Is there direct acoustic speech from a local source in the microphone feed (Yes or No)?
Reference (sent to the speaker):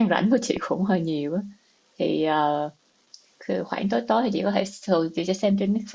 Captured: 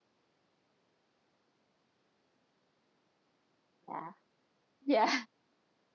Yes